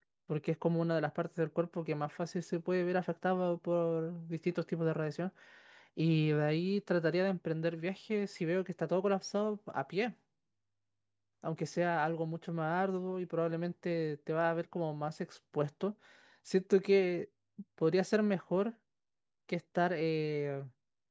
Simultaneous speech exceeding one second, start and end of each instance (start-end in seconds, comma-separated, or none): none